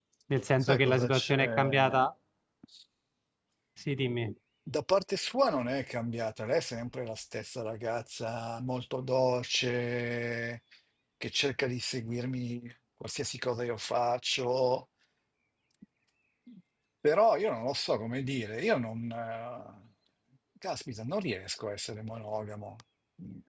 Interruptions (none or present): present